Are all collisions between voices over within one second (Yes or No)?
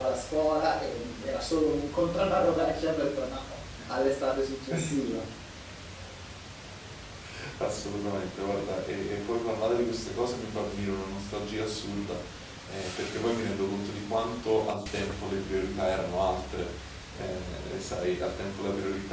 Yes